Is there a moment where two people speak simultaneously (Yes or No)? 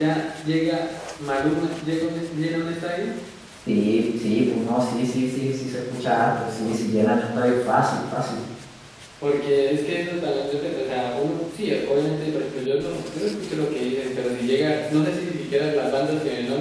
No